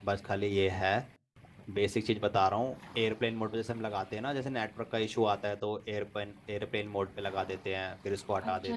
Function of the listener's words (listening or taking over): taking over